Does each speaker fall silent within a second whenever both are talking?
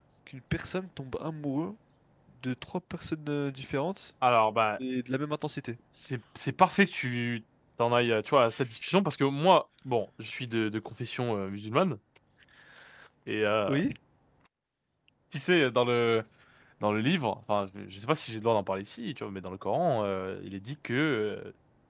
Yes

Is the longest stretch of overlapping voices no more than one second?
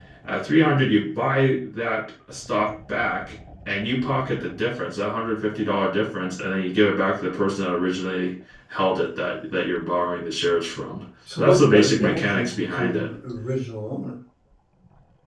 No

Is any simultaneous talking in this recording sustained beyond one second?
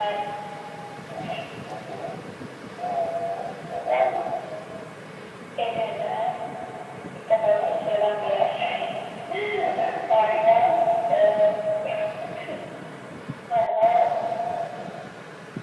Yes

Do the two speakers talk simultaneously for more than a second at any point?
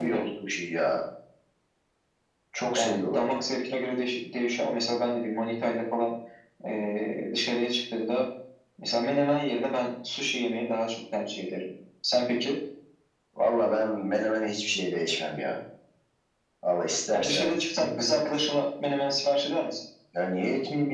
No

